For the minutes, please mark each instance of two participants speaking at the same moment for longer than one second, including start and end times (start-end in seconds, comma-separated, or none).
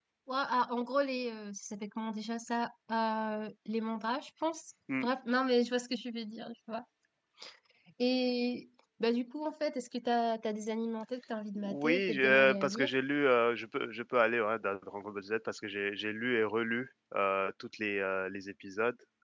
11.6-12.9